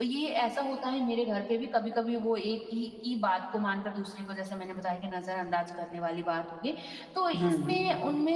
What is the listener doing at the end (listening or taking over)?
listening